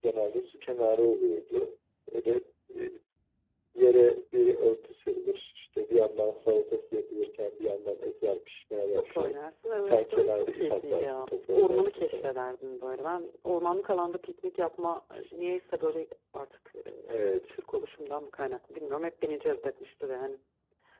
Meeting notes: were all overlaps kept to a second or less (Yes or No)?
No